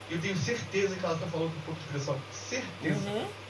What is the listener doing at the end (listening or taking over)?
taking over